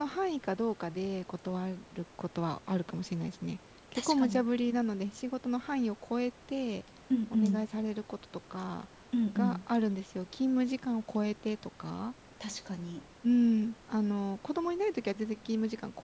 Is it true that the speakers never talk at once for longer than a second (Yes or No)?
Yes